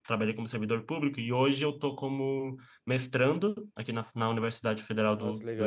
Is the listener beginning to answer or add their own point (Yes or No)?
No